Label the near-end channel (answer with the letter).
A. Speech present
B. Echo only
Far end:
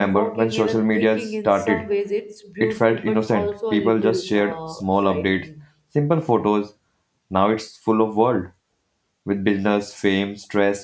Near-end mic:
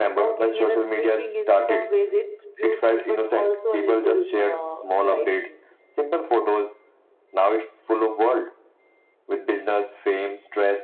B